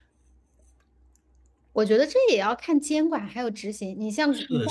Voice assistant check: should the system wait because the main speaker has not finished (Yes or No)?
No